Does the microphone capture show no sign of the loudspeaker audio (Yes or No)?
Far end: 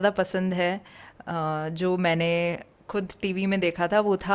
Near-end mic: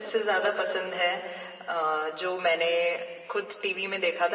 No